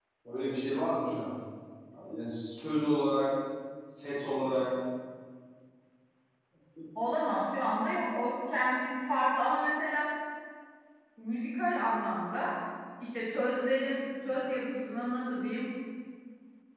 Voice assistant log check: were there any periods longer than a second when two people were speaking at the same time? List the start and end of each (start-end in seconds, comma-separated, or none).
none